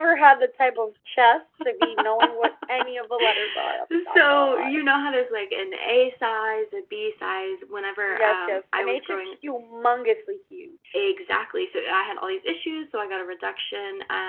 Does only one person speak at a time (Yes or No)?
No